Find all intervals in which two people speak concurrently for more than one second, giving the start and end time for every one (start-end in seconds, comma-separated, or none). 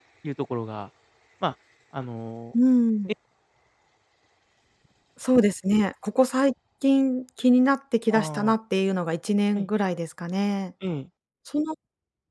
none